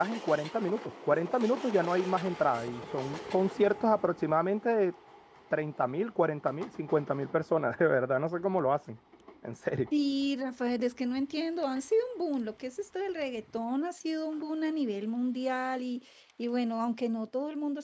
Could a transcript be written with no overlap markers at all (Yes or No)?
Yes